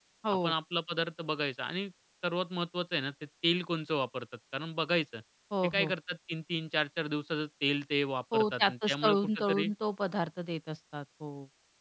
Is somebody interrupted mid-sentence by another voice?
Yes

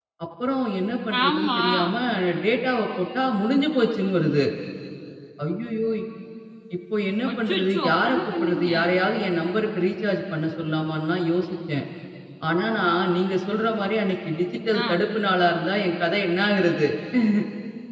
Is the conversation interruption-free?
No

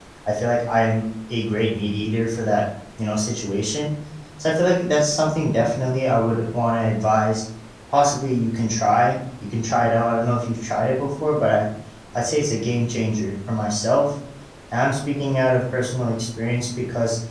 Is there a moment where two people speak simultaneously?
No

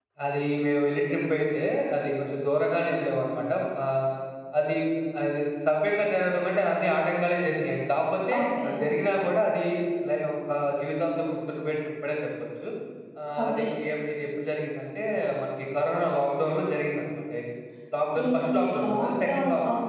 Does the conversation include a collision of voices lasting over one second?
Yes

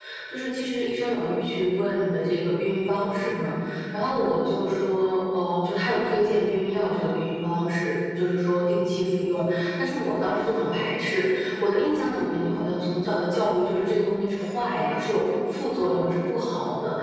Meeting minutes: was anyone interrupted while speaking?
No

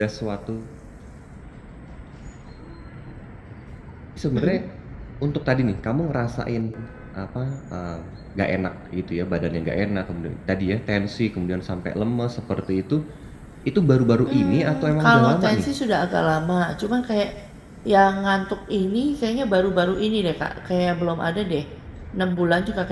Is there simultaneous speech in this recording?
Yes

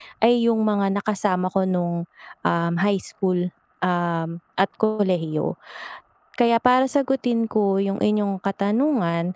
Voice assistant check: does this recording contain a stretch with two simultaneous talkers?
No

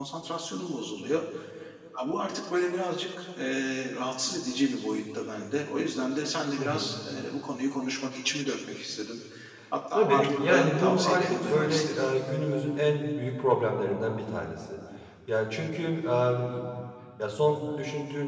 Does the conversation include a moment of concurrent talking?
Yes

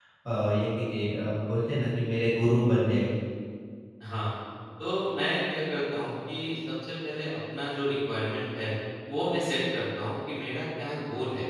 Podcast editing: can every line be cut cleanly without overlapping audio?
Yes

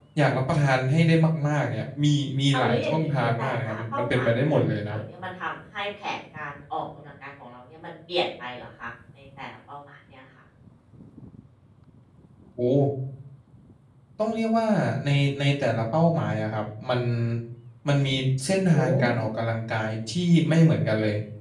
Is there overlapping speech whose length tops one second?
Yes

